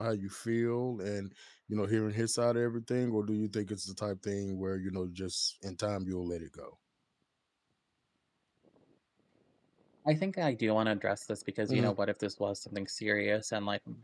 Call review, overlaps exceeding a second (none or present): none